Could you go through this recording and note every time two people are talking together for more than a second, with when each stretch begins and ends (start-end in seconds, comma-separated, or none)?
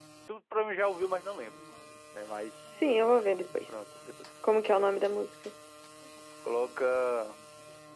none